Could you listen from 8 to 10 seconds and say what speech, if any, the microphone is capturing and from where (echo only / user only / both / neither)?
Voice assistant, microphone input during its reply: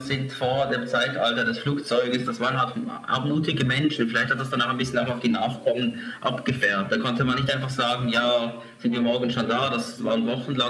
both